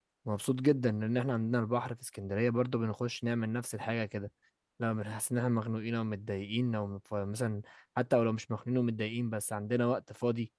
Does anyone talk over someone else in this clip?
No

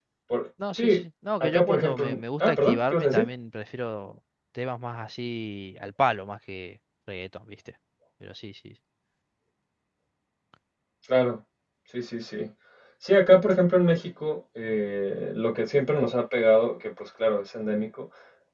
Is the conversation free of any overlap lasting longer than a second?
No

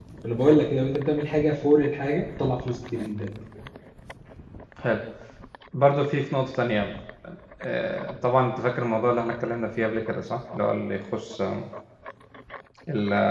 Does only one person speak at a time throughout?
Yes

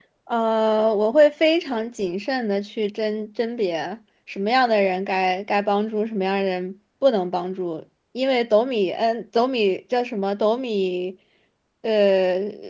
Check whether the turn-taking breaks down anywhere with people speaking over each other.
No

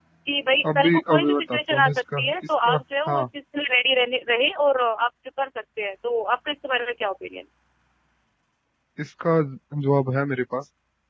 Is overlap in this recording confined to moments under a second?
No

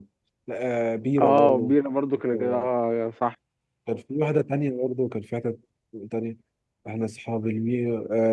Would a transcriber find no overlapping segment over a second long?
Yes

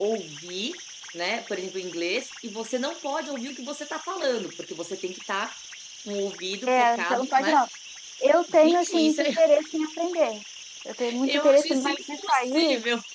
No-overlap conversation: No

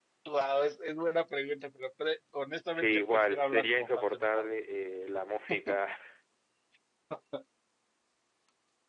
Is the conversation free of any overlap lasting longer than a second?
No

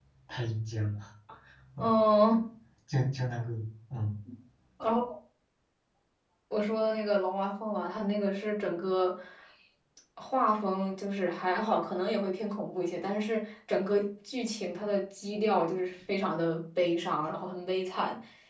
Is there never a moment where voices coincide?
Yes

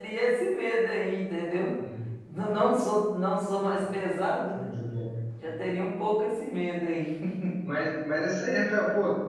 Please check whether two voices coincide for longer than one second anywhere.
No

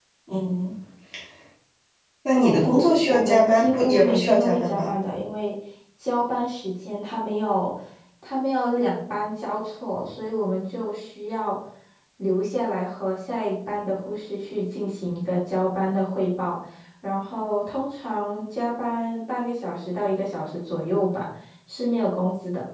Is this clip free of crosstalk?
No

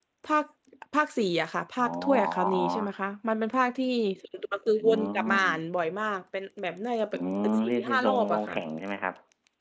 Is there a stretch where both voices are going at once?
Yes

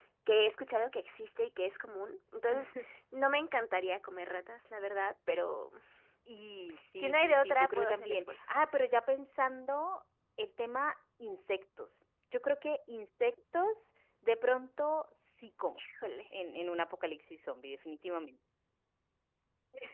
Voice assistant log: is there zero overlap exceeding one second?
No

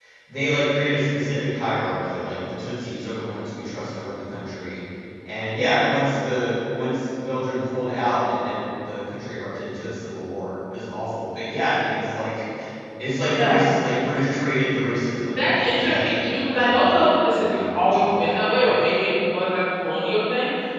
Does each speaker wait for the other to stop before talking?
No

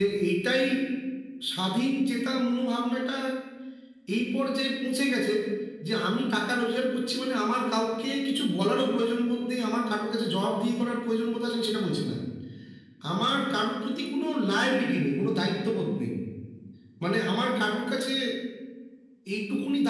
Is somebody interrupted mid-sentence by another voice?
No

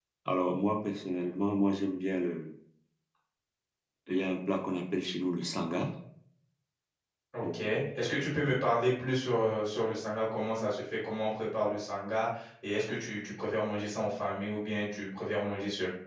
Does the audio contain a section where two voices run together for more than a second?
No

